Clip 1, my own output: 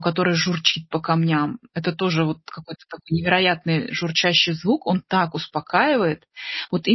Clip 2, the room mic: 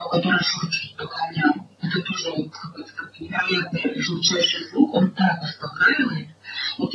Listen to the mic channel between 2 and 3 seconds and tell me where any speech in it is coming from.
echo only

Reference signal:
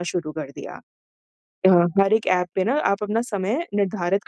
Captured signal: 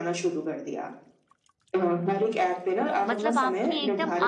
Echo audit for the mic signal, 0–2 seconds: echo only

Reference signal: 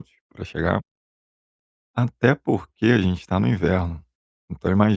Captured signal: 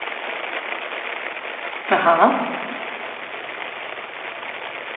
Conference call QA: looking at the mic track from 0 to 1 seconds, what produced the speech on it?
neither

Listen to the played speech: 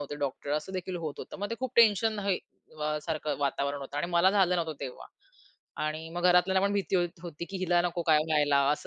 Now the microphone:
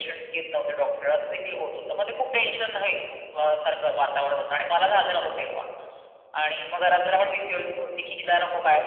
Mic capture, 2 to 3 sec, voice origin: echo only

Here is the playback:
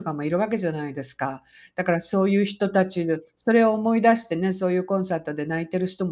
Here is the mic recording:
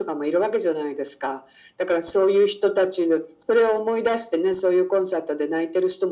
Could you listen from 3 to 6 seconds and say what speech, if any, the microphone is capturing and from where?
echo only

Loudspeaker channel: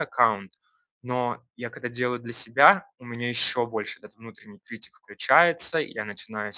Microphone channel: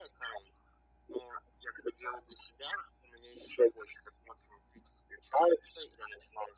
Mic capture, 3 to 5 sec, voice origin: echo only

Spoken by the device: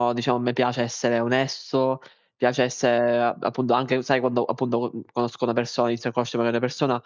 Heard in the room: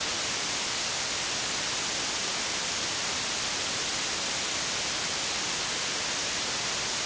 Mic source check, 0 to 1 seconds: neither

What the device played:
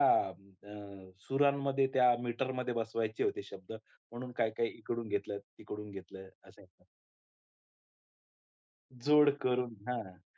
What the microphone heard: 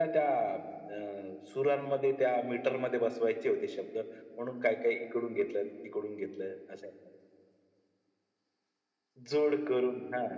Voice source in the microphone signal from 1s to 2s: echo only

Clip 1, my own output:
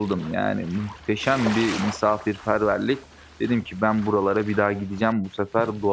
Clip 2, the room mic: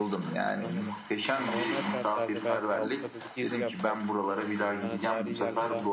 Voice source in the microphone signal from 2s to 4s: both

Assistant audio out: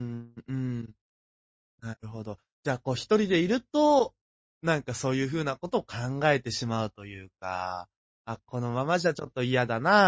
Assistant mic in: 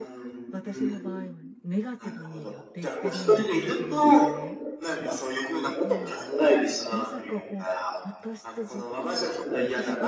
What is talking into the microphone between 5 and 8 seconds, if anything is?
both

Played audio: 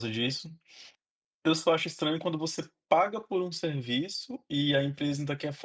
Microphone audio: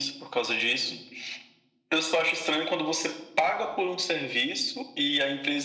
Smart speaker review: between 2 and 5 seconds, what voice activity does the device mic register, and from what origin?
echo only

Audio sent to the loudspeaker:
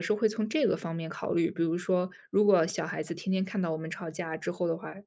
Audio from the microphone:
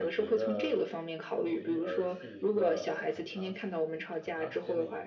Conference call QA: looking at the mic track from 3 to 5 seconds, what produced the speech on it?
both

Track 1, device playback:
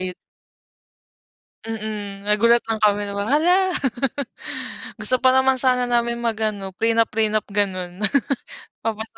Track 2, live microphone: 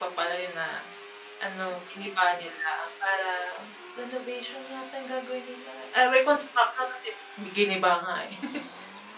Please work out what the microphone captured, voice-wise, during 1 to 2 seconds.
user only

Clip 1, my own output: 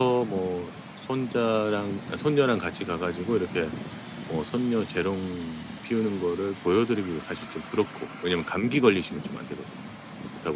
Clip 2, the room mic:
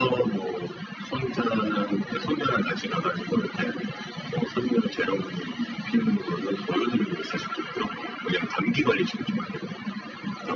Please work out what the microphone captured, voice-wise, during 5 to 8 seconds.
echo only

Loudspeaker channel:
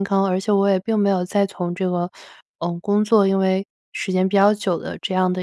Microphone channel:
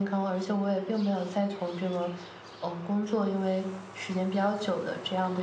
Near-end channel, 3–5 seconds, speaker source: echo only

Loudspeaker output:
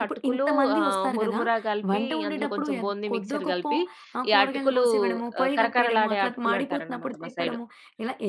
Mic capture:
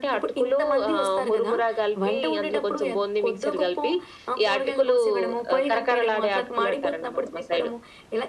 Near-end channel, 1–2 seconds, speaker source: echo only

